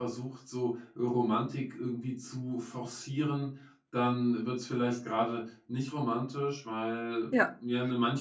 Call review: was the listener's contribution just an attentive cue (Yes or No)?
Yes